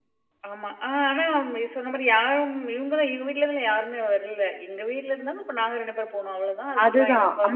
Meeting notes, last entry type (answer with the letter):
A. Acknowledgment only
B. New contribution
B